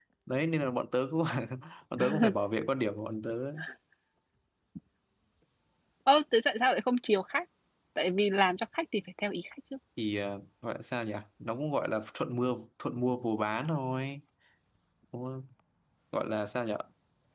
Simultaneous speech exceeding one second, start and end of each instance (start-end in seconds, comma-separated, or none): none